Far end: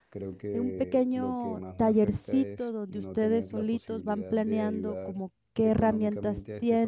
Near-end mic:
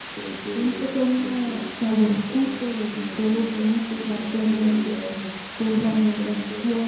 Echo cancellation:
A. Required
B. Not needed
A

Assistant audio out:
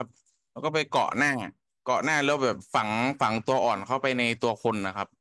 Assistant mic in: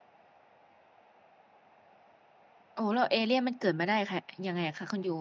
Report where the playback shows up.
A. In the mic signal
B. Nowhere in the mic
B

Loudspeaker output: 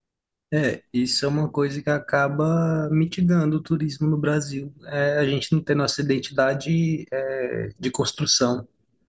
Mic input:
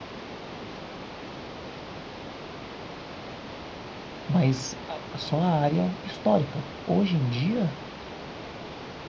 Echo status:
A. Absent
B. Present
A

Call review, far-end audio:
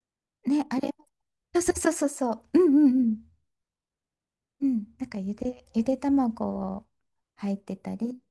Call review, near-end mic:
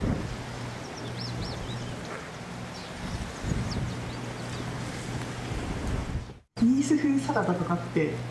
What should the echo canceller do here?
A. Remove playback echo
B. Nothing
B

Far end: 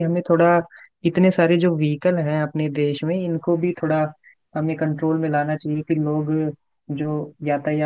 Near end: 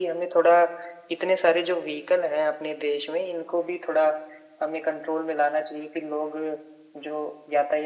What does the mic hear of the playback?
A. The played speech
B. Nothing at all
A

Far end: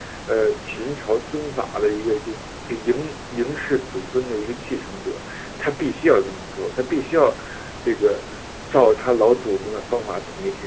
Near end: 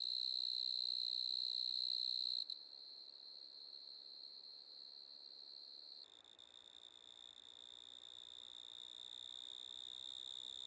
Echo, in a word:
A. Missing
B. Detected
A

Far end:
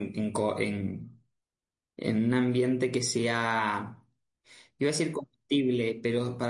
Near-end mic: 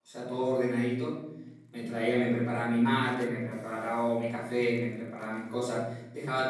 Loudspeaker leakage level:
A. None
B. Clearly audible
A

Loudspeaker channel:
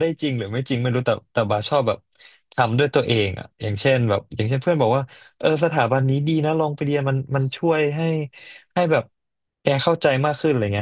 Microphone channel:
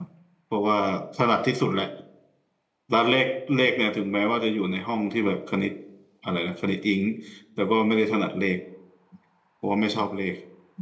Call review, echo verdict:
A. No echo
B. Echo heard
A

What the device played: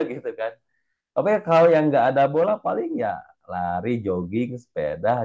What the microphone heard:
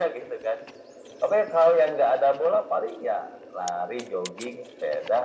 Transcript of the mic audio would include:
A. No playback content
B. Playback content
B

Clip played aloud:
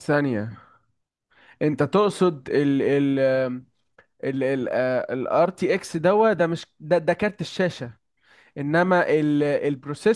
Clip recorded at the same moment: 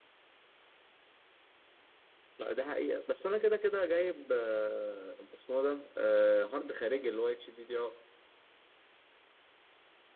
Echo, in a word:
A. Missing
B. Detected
A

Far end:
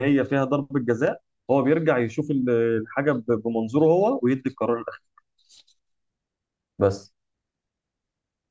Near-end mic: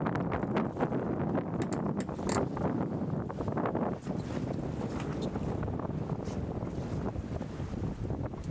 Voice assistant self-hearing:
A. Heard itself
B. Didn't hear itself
B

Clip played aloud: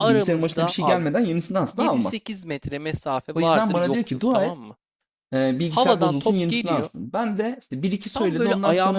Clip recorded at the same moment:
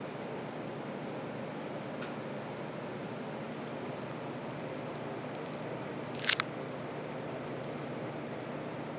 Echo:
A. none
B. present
A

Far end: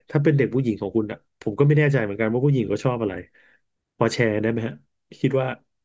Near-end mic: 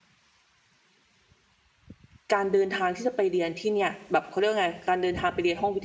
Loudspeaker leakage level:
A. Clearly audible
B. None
B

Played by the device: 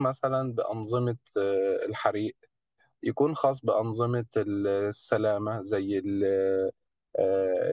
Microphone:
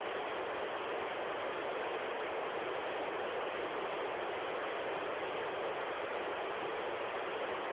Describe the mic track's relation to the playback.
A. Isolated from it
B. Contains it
A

